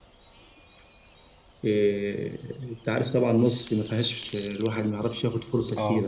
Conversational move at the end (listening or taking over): listening